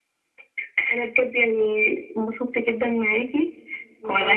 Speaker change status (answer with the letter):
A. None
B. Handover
A